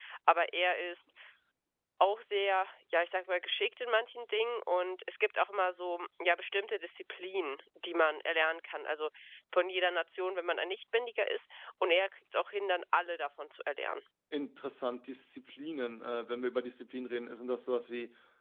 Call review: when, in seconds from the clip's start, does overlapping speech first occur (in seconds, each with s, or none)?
none